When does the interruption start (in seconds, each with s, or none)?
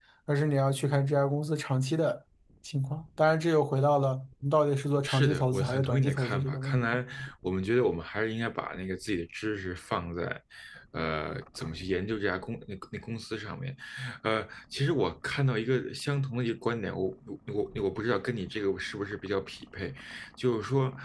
5.0 s